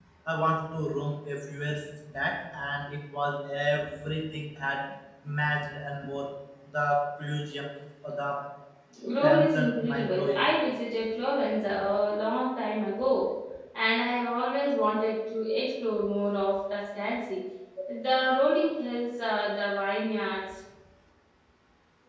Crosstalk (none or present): present